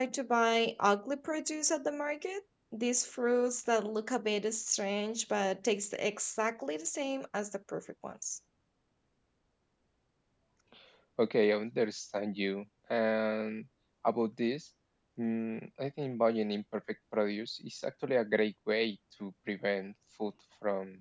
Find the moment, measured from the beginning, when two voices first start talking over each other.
none

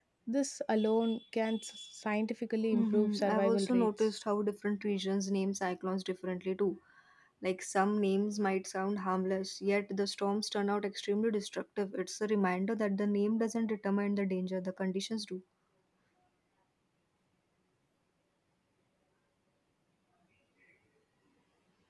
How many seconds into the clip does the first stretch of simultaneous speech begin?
3 s

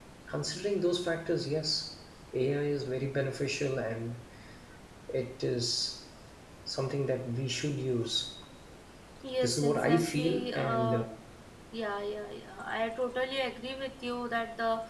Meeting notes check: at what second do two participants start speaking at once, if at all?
9 s

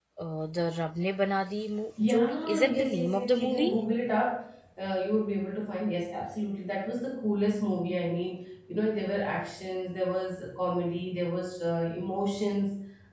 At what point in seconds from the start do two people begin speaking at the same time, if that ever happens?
2 s

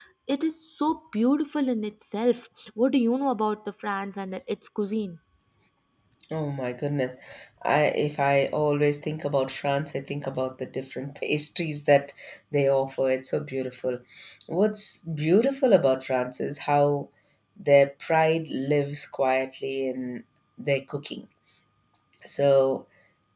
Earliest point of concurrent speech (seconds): none

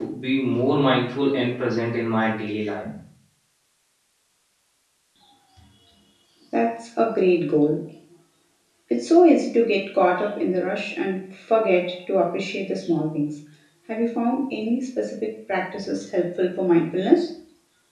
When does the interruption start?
none

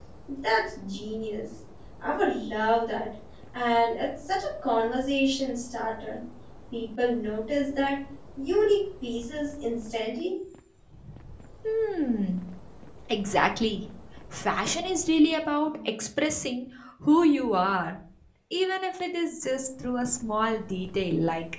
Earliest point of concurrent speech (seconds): none

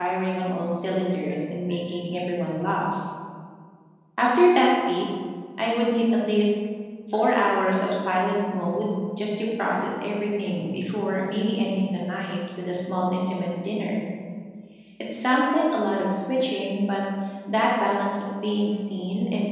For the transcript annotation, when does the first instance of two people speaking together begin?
none

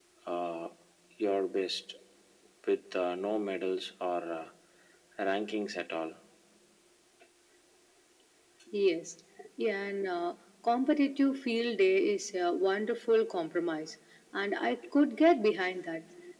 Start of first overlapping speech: none

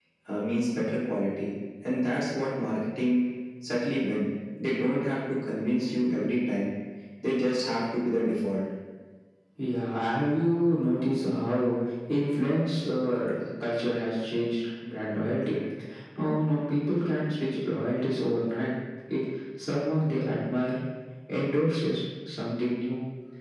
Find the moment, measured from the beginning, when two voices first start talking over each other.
none

